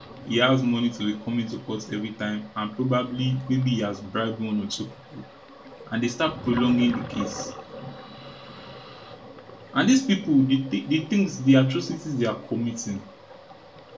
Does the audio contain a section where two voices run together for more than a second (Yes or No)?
No